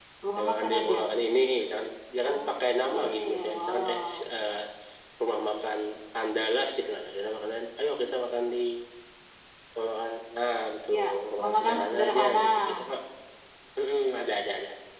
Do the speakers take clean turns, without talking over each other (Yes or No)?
No